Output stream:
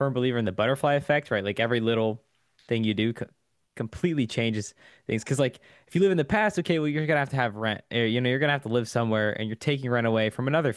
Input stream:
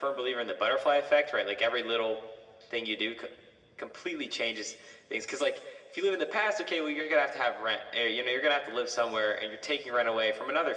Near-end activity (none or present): none